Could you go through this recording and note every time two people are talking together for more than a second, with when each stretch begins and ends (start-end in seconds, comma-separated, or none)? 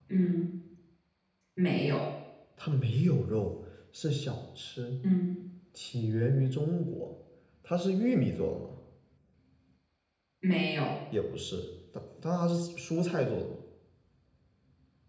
none